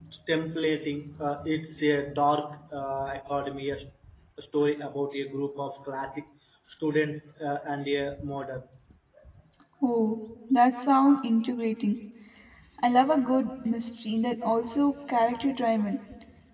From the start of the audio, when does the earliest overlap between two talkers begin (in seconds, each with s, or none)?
none